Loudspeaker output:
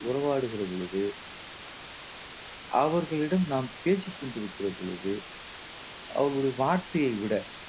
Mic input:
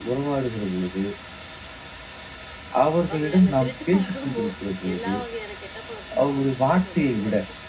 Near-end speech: present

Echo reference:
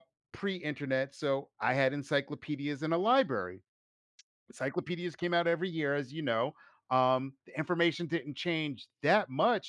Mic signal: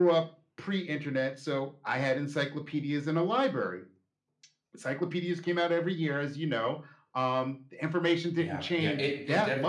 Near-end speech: present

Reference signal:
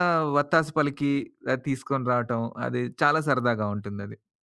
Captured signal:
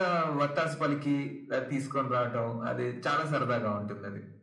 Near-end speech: none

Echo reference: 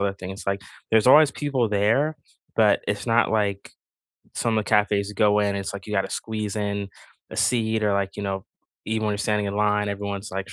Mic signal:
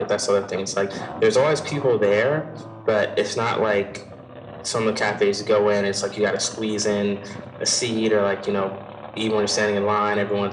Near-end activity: none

